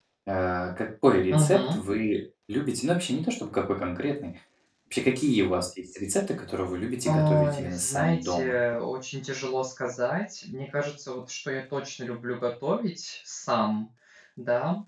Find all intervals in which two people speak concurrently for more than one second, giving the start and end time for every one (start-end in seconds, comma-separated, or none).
7.0-8.6